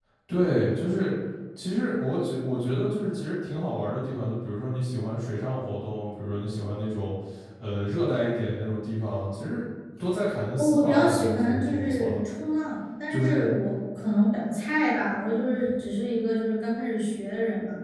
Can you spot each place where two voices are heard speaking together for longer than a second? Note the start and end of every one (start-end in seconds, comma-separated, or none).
10.6-12.2